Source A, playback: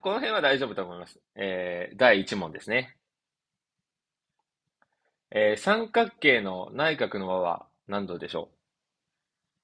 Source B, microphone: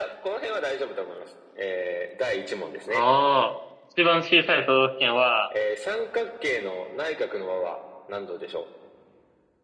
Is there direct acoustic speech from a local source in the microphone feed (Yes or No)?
Yes